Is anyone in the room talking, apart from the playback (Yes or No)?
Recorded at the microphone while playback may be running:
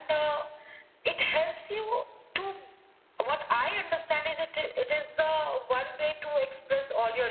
No